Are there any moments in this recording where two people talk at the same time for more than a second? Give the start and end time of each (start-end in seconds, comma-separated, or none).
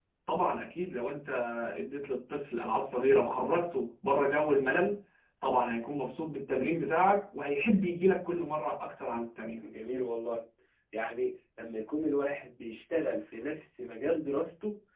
none